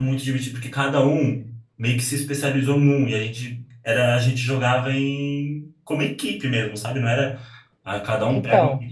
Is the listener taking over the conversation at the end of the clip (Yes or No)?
No